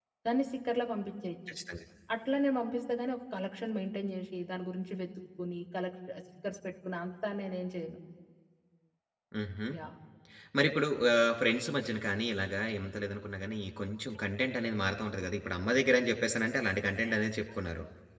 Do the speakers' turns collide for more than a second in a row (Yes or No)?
No